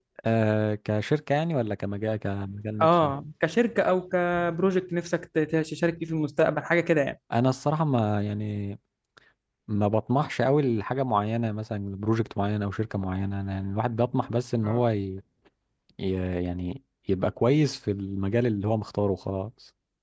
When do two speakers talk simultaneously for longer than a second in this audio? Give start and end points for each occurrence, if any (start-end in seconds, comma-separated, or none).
none